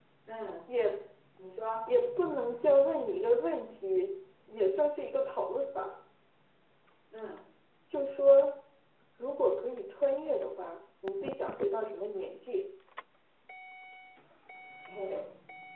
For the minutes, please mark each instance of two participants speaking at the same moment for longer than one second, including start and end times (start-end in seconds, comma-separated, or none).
none